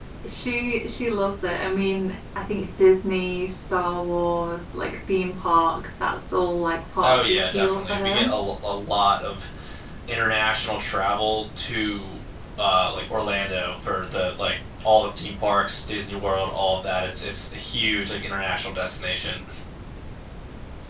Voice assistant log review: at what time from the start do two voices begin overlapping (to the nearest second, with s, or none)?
7 s